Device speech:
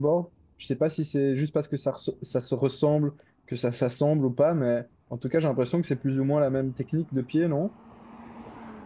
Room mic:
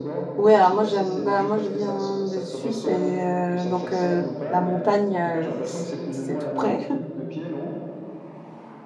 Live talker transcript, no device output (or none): ouais, alors moi, j'aime, bah, moi, je viens de Suisse et euh, donc euh, la montagne, euh, c- c'est tout près.